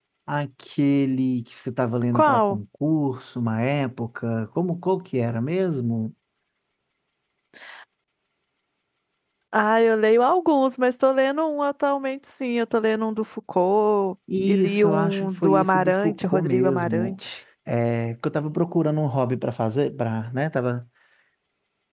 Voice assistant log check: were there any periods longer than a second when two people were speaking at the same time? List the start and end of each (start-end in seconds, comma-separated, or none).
14.5-17.1